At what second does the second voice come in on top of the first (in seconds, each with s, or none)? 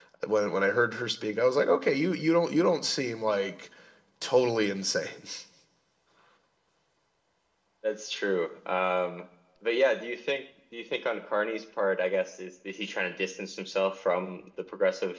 none